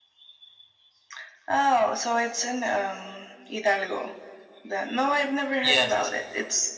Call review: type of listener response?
listening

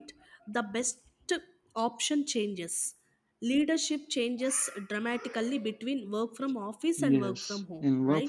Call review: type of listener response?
taking over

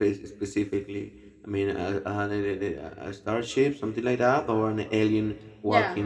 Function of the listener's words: taking over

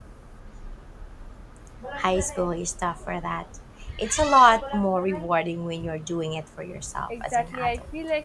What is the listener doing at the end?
taking over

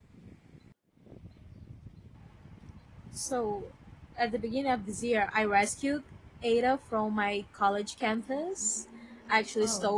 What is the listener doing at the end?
listening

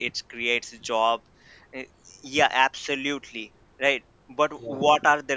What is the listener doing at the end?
listening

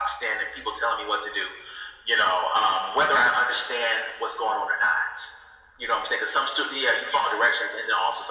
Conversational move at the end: listening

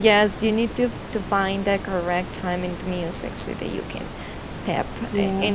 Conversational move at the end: taking over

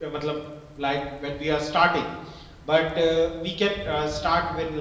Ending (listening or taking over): listening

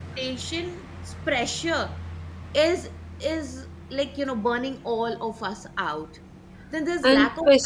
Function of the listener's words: taking over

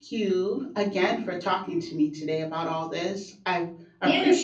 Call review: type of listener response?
taking over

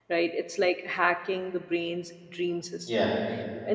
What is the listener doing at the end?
listening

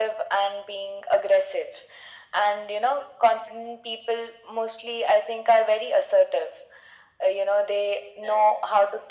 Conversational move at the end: listening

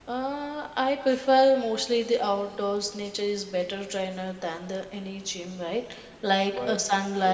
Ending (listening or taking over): listening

